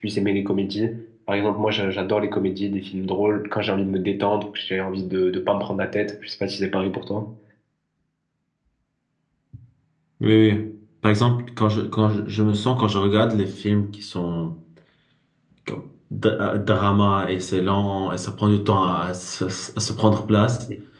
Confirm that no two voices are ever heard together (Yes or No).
Yes